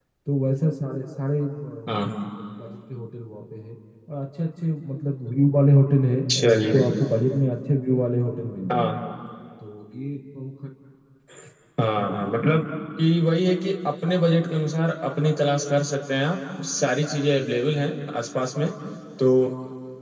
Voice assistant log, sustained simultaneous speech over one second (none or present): none